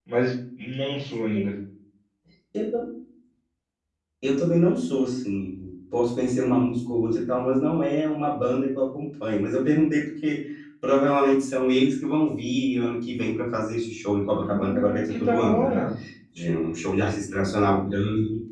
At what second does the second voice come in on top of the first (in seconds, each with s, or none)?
14.4 s